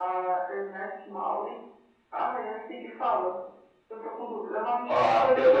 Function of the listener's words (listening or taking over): taking over